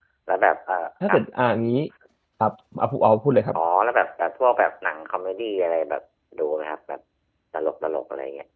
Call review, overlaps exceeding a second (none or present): none